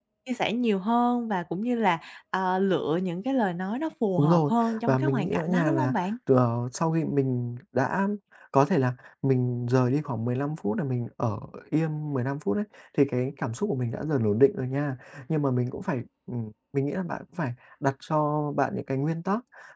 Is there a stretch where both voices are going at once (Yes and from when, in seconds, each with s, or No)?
Yes, from 4.2 s